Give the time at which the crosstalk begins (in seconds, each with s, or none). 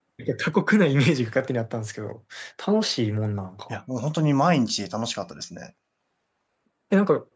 none